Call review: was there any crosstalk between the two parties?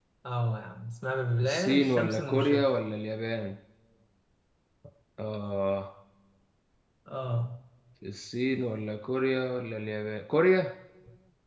Yes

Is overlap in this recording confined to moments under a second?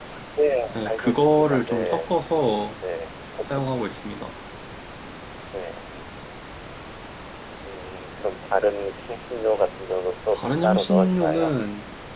No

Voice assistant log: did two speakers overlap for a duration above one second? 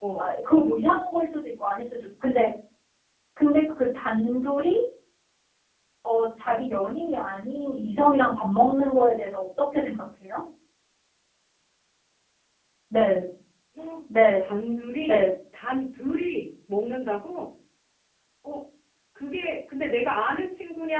No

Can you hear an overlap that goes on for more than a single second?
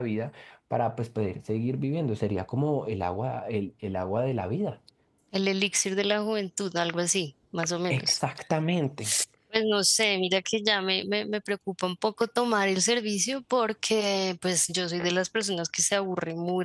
No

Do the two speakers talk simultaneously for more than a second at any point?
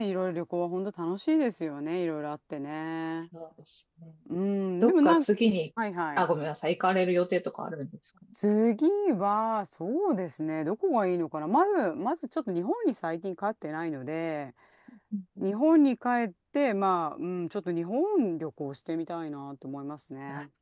No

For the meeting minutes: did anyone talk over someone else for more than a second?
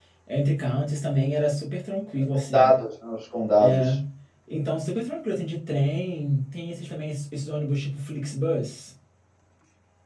No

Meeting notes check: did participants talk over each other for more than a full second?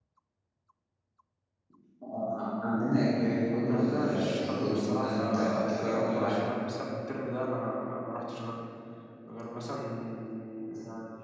Yes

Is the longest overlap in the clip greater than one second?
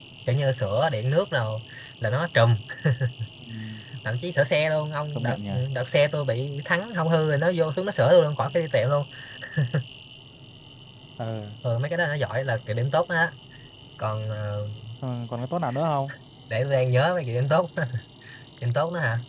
No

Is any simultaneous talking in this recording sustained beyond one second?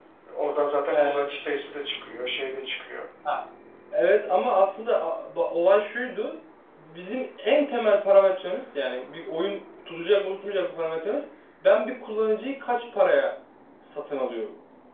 No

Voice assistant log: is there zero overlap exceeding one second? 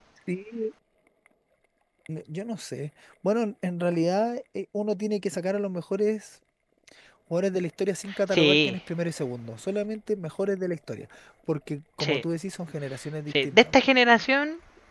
Yes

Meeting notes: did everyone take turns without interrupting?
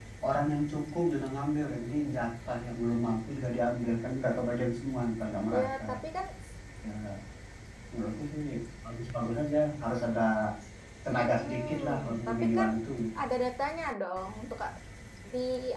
No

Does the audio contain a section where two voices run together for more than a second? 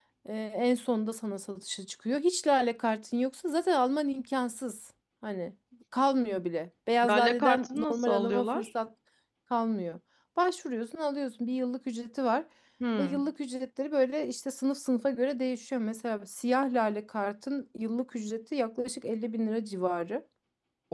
Yes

